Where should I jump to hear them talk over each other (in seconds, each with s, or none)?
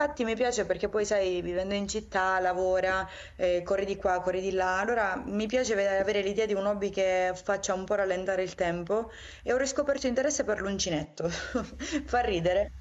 none